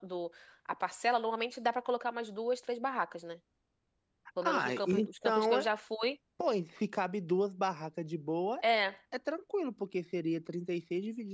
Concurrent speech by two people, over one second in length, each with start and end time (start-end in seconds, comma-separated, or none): 4.4-5.7